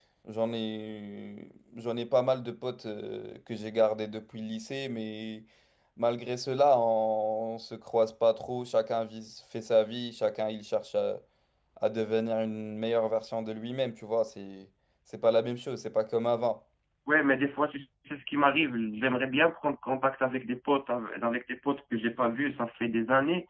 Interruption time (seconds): none

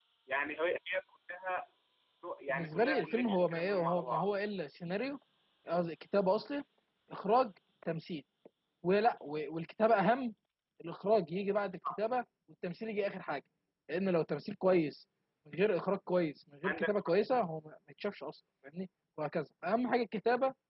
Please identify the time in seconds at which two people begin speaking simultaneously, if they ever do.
2.5 s

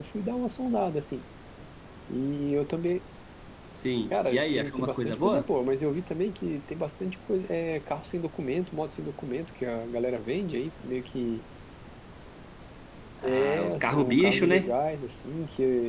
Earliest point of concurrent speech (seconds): 4.1 s

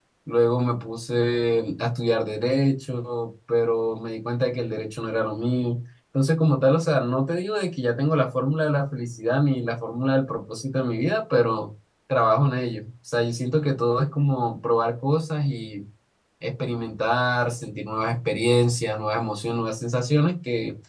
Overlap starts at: none

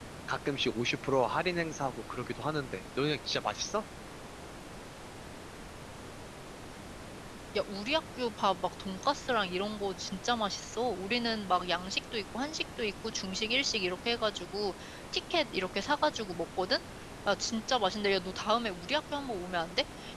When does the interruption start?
none

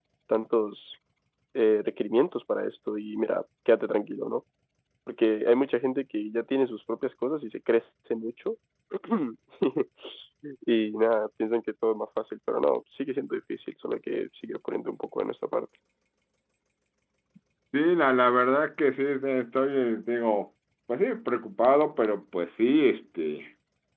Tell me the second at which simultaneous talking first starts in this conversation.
none

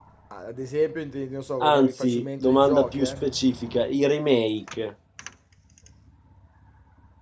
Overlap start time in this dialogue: 1.6 s

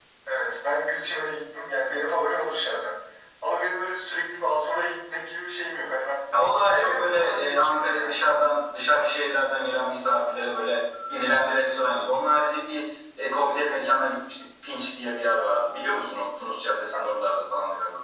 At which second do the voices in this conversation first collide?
6.6 s

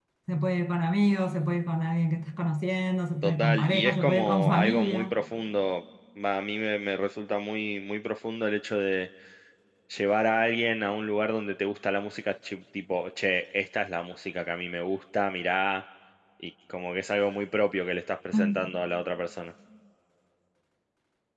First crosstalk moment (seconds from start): 3.2 s

